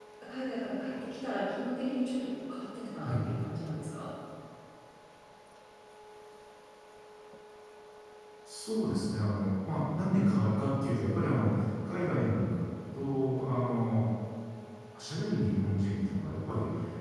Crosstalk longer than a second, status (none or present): none